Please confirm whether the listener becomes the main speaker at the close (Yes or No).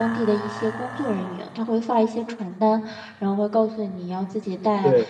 No